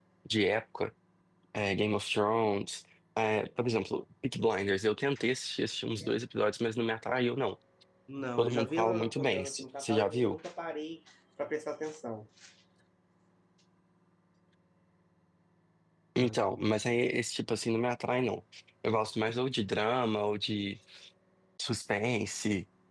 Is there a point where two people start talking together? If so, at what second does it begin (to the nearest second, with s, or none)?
8 s